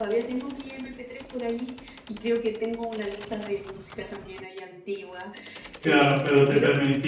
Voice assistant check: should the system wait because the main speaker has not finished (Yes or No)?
No